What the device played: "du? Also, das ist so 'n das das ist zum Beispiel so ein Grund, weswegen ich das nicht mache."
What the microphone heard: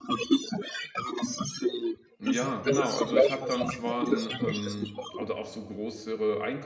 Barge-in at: 2.2 s

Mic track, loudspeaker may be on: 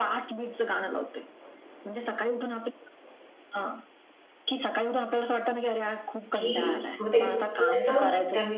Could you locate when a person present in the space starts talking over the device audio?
6.3 s

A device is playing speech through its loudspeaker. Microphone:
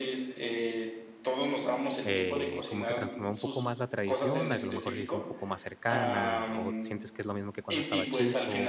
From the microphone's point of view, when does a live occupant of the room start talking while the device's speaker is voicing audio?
2.0 s

